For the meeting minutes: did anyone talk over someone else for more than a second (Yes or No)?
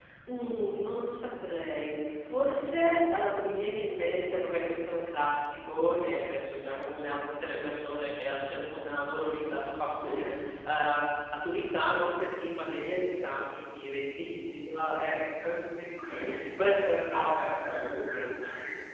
No